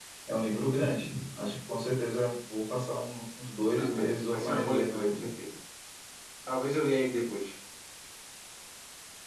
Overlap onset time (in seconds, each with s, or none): 3.8 s